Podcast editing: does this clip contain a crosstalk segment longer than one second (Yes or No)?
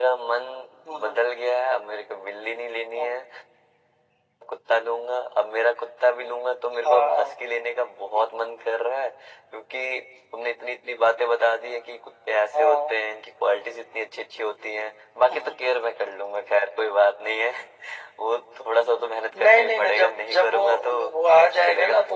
Yes